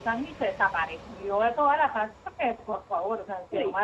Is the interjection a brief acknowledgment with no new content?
Yes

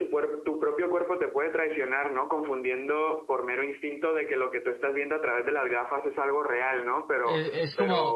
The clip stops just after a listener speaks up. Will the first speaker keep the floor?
No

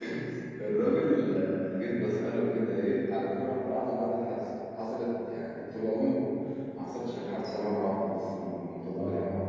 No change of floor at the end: Yes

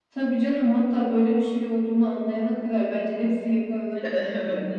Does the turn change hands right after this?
Yes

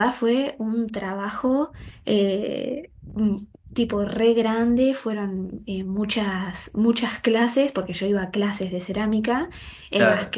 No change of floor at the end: Yes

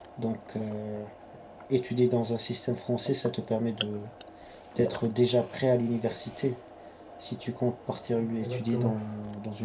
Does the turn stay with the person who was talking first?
Yes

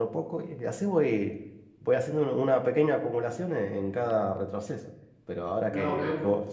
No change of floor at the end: Yes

